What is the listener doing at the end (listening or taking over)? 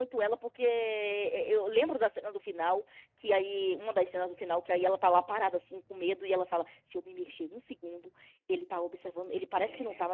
listening